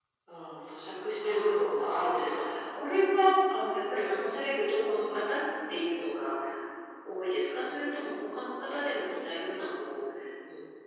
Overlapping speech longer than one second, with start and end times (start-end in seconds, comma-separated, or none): 1.2-2.6